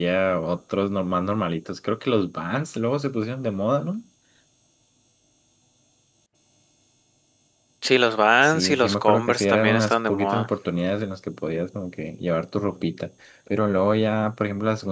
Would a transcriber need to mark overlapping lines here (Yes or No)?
Yes